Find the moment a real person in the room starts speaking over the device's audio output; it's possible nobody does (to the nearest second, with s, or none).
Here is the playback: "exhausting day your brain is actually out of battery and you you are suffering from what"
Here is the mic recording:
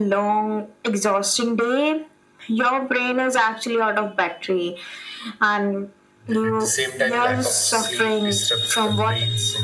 6 s